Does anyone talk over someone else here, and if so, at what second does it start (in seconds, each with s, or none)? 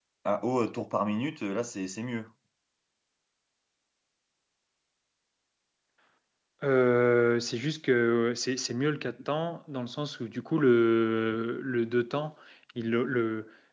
none